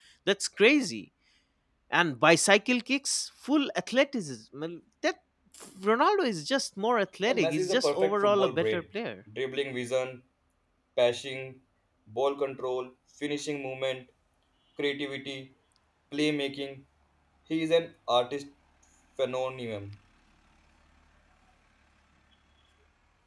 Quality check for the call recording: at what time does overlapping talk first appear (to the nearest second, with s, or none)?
7 s